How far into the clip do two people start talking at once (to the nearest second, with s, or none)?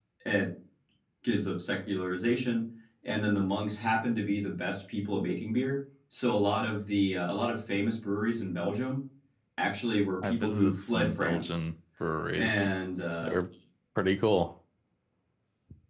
10 s